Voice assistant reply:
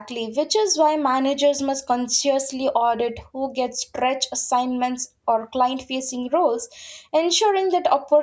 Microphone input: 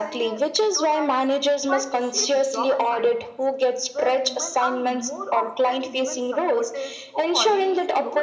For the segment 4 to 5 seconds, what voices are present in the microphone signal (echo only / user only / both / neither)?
both